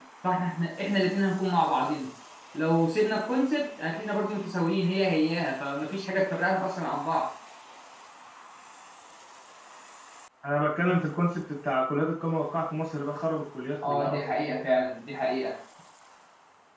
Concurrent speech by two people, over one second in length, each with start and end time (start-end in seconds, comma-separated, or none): none